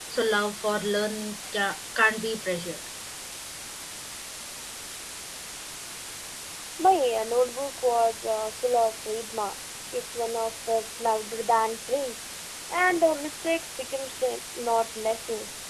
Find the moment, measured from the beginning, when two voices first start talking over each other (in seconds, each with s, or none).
none